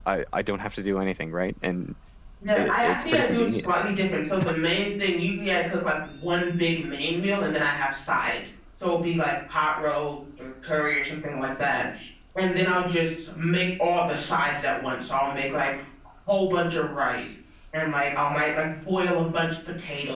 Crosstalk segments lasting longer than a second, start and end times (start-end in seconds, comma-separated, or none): 2.5-3.8